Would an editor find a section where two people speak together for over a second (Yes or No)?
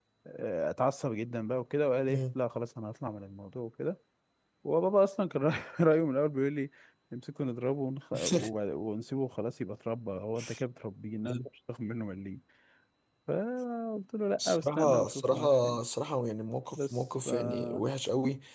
Yes